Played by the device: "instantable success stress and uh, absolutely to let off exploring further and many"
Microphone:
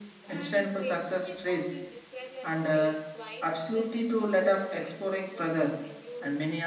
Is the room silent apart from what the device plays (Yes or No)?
No